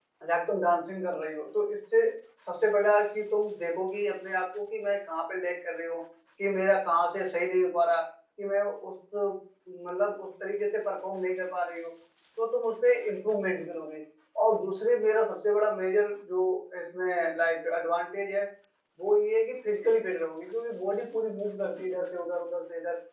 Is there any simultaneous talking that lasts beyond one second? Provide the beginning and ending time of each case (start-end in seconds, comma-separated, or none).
none